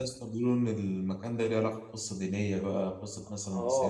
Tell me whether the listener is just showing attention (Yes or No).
No